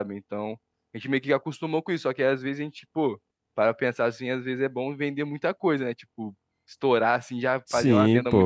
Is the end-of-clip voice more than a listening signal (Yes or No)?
No